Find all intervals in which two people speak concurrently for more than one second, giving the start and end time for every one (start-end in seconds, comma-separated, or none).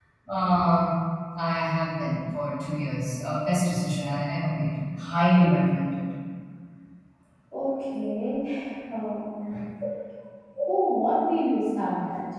none